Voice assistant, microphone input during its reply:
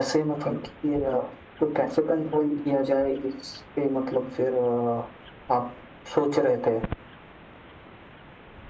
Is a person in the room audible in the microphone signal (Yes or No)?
No